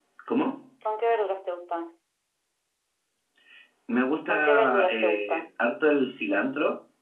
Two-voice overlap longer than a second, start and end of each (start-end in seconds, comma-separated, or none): 4.2-5.5